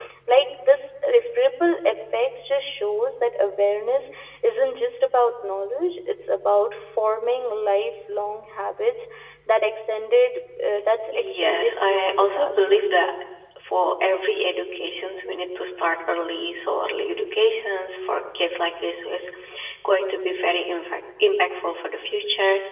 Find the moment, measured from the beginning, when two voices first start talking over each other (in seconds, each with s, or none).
11.1 s